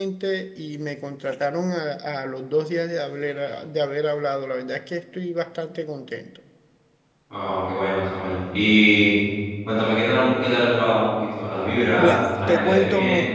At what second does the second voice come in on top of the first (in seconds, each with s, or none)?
12.0 s